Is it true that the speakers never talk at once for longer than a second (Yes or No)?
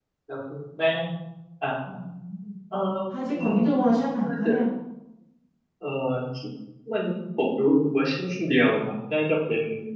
Yes